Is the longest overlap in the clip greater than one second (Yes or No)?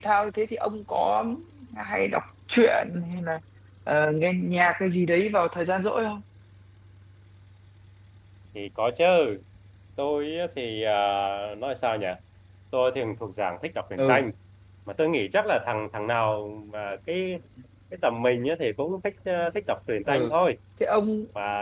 No